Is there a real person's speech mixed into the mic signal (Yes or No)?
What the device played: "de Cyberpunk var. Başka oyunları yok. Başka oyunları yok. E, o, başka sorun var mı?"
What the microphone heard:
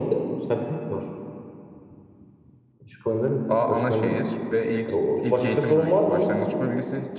Yes